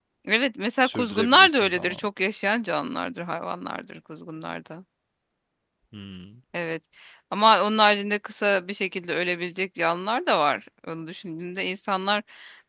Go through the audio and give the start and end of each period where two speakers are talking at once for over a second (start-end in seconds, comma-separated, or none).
0.8-2.1